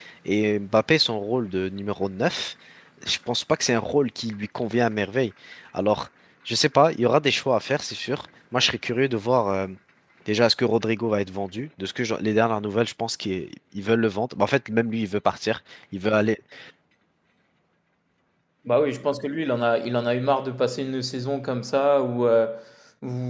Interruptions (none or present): none